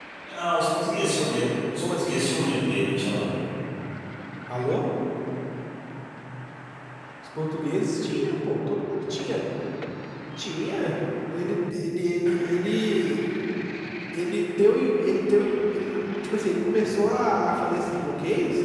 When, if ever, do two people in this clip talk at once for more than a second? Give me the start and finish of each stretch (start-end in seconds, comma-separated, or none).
none